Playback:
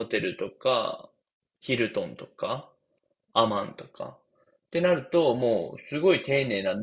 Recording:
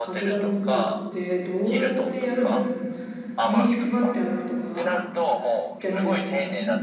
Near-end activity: present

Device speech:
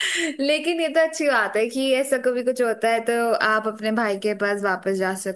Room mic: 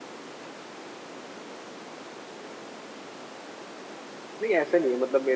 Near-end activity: present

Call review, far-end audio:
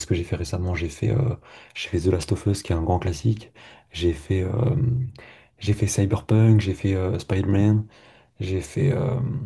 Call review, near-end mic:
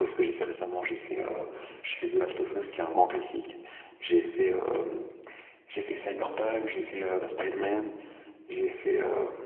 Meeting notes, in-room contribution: none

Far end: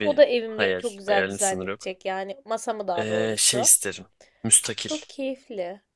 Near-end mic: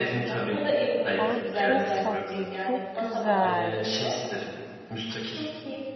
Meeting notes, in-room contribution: present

